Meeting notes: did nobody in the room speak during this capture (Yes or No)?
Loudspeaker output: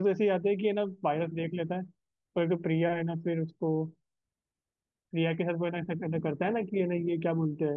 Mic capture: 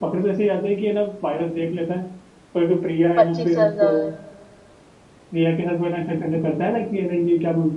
No